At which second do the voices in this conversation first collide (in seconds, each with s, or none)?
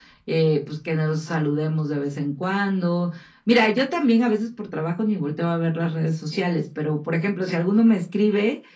none